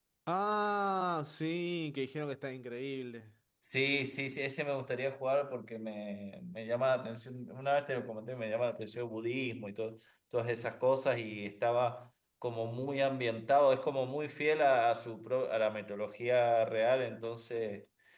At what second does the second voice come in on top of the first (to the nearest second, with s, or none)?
none